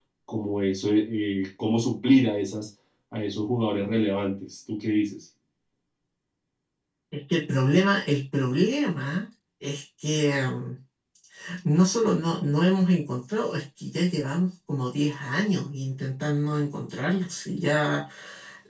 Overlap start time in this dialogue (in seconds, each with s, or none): none